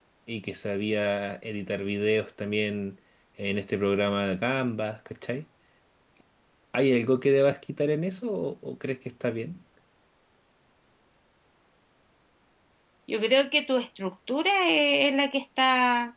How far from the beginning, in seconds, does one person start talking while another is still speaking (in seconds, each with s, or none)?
none